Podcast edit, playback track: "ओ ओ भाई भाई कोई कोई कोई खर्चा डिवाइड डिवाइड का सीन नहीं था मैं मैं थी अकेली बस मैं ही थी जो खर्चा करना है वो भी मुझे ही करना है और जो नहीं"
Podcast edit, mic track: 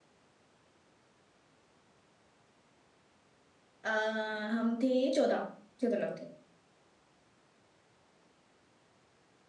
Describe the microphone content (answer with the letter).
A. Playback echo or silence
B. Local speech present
B